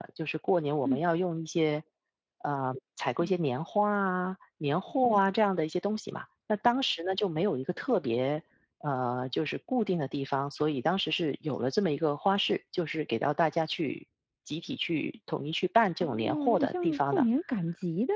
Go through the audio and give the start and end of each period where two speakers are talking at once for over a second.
16.0-17.2

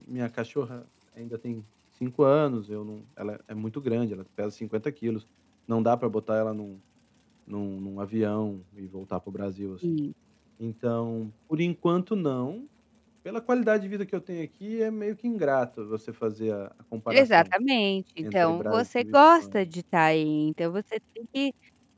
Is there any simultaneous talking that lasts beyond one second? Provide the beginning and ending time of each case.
18.2-19.7

